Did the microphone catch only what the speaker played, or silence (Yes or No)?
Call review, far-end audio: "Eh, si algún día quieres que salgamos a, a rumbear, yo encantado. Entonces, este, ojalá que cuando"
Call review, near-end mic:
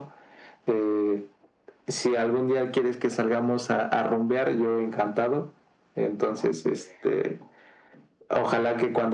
Yes